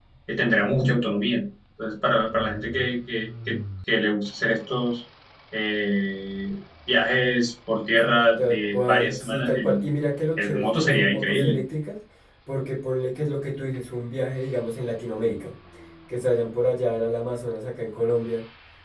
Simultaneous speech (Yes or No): Yes